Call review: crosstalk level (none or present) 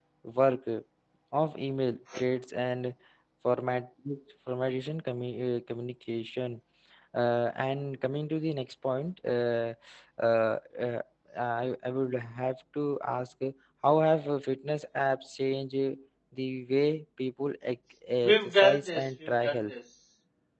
present